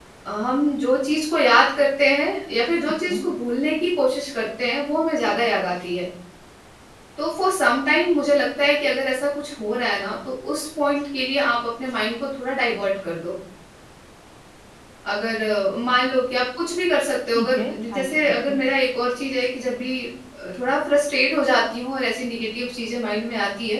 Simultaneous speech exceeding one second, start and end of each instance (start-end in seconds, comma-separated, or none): 17.4-18.6